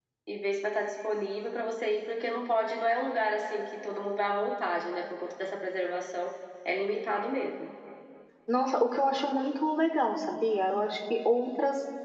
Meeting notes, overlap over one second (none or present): none